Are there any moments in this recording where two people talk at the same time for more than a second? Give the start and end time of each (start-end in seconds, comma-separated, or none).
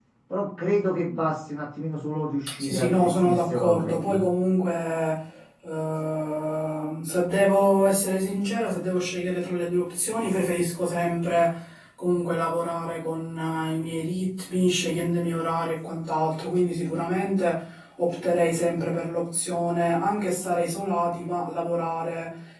2.6-4.2